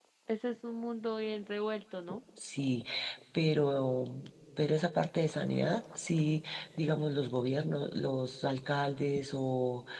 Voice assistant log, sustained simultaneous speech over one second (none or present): none